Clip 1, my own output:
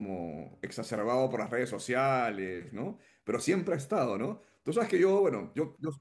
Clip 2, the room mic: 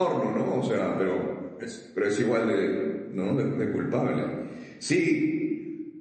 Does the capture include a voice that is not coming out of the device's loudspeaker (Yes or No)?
Yes